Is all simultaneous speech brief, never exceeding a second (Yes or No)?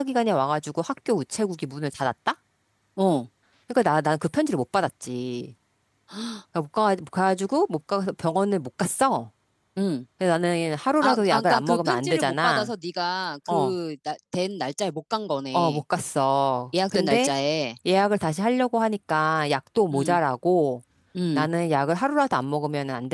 No